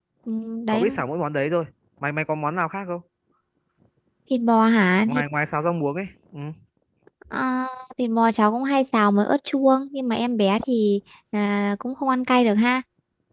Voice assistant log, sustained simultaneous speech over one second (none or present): none